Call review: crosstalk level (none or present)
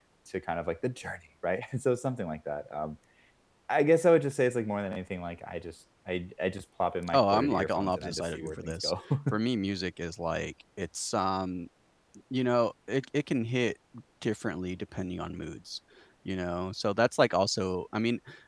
present